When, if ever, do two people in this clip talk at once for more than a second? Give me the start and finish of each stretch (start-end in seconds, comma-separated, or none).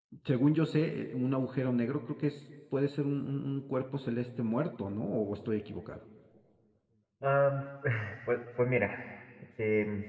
none